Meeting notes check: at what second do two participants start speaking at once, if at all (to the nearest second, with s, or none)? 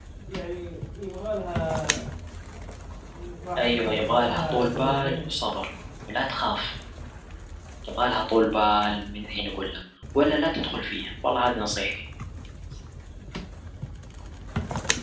4 s